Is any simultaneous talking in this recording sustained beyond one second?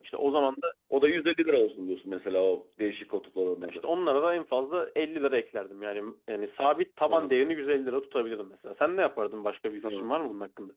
No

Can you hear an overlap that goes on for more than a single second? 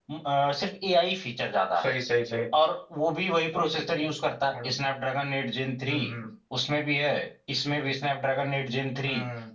No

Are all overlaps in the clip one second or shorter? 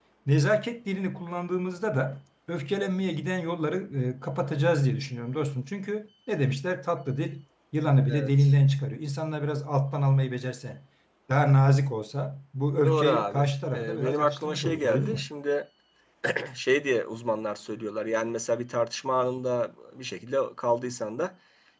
No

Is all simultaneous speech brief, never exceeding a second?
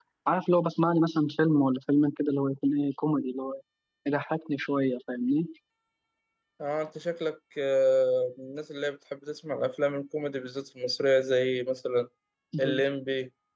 Yes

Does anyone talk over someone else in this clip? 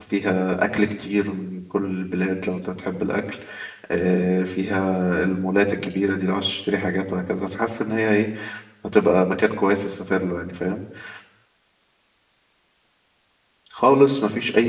No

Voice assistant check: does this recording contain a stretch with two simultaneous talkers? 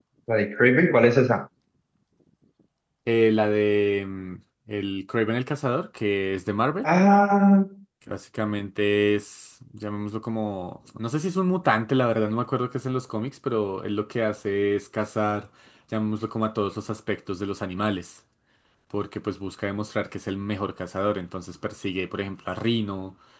No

